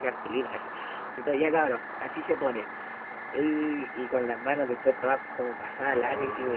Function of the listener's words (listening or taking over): listening